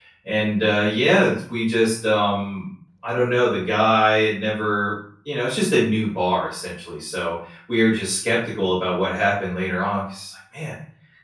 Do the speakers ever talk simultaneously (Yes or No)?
No